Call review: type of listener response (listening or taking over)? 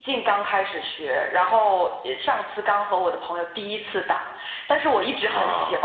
listening